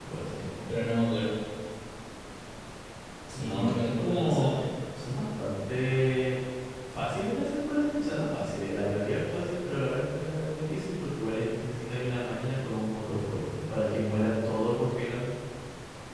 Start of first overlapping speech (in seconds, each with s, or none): 3.3 s